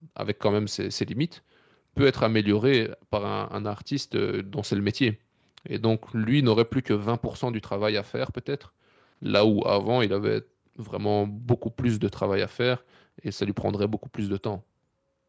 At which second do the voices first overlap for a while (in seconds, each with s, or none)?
none